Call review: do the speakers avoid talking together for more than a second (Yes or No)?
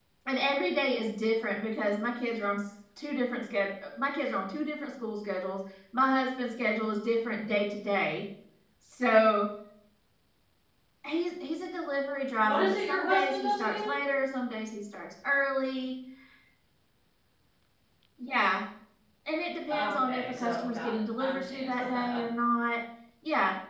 No